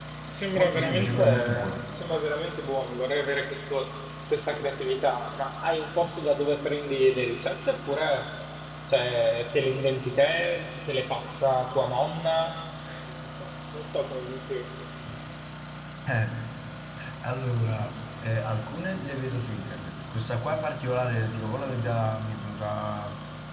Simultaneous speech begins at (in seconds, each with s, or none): 0.6 s